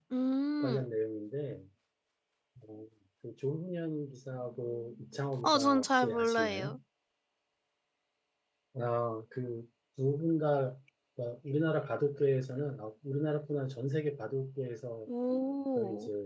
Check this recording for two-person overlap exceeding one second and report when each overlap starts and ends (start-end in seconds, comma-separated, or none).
5.4-6.8